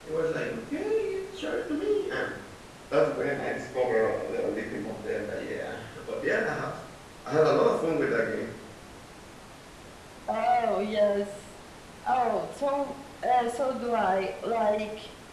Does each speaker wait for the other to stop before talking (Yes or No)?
Yes